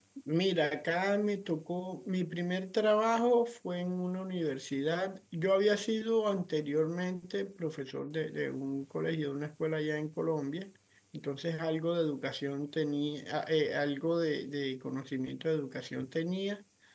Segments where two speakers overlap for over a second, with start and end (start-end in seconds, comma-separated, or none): none